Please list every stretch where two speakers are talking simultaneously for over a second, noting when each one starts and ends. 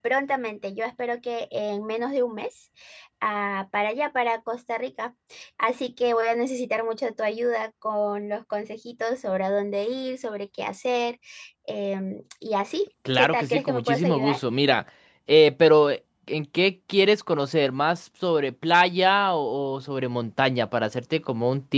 13.1-14.4

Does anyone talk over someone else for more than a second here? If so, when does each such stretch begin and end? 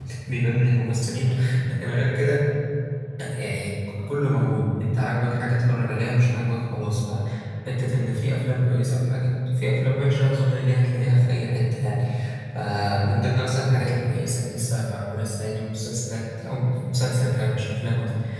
none

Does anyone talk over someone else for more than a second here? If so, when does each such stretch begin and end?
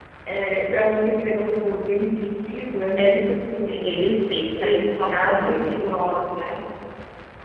4.6-5.9

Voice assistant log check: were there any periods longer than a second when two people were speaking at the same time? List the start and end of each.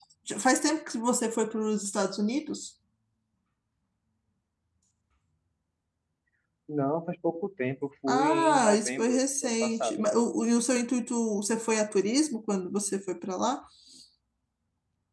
8.1-10.0

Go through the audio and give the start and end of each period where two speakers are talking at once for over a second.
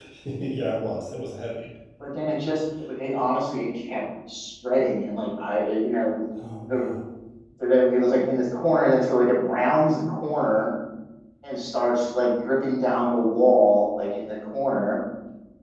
none

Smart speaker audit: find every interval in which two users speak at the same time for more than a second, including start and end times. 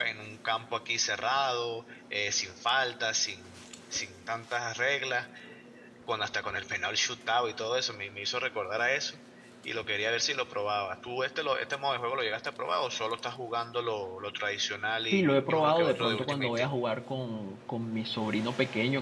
15.1-16.7

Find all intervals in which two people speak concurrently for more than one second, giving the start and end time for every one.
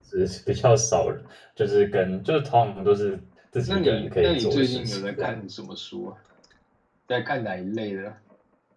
3.7-5.4

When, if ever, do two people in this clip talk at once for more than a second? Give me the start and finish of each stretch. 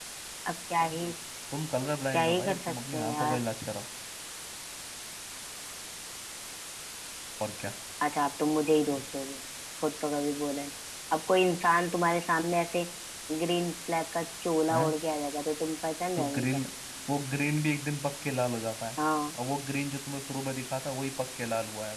2.1-3.4

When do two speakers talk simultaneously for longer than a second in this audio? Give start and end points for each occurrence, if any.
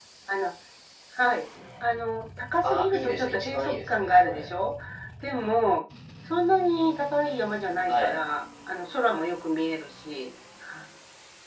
2.6-4.5

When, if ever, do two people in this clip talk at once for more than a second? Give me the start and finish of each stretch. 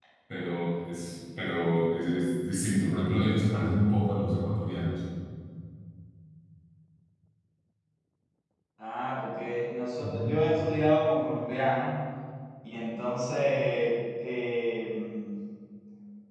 none

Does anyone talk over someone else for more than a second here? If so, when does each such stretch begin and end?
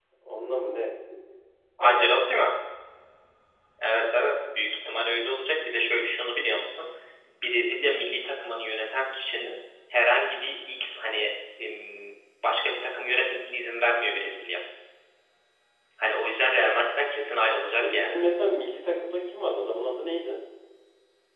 none

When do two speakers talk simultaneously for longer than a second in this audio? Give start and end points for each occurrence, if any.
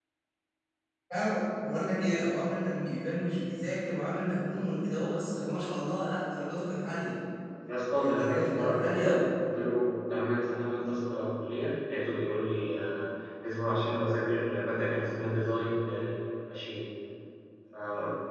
7.9-9.3

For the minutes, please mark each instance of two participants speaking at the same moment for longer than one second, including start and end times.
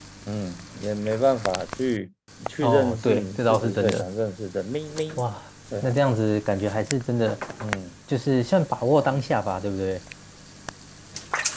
2.6-4.1

